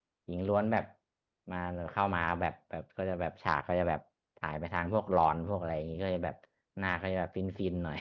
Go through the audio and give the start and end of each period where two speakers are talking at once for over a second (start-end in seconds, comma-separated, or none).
none